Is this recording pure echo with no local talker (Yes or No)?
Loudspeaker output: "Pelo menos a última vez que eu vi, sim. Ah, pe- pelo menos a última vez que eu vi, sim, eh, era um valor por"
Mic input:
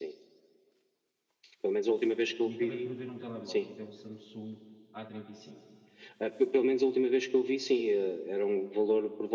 No